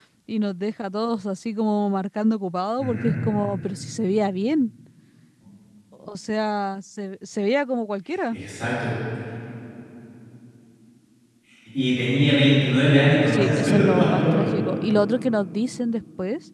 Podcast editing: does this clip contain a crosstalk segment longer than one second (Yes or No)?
Yes